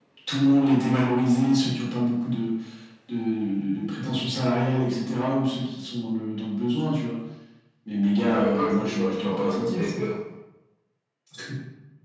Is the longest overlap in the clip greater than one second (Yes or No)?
Yes